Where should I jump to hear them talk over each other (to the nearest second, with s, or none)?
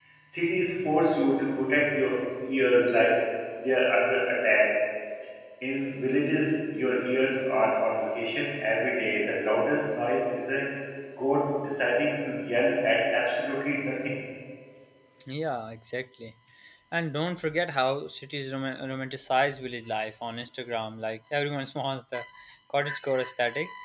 none